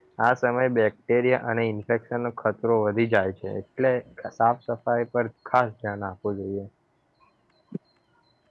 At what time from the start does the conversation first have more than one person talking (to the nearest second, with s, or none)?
none